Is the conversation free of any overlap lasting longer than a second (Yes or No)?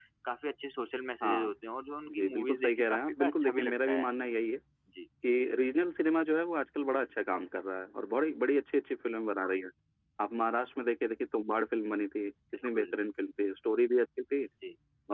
No